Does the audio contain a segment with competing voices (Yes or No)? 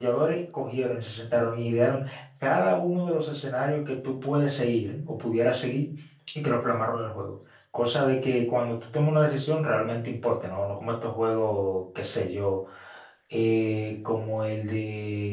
No